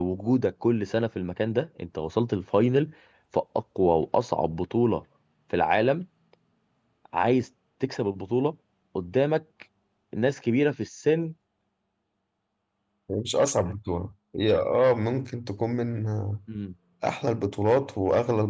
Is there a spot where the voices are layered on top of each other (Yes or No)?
No